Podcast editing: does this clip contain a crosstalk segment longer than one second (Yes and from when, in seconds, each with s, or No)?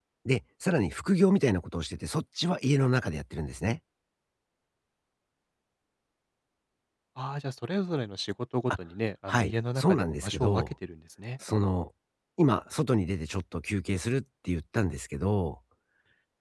Yes, from 9.3 s